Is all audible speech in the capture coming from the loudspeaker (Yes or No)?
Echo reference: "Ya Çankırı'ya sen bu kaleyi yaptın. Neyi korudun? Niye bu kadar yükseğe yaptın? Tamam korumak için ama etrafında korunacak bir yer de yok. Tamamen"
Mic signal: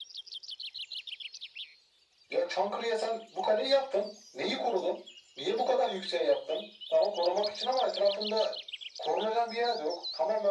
Yes